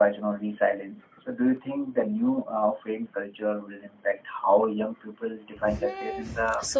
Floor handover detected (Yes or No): Yes